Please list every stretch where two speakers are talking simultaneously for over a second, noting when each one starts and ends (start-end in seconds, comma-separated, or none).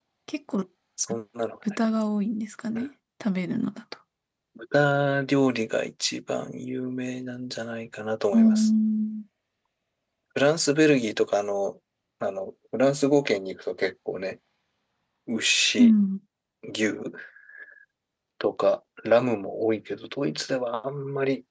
none